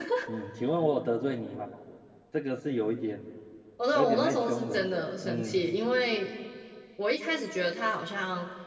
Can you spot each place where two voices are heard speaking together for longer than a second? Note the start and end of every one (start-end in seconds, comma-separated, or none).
3.9-5.7